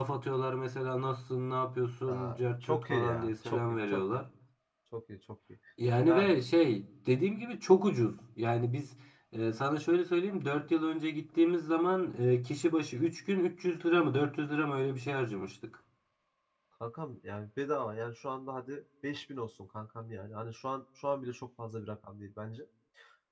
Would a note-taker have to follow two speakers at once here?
Yes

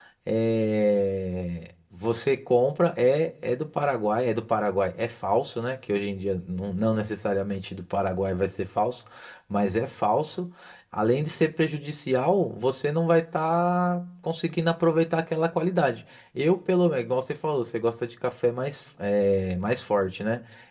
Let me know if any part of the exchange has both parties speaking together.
No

